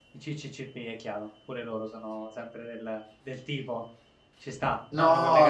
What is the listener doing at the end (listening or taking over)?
taking over